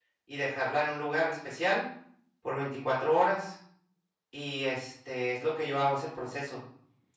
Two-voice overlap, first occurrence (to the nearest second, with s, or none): none